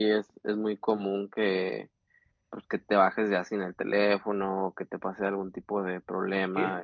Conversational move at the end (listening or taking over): taking over